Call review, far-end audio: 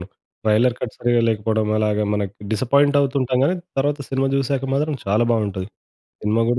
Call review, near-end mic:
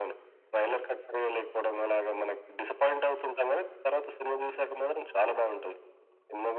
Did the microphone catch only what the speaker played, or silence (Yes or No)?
Yes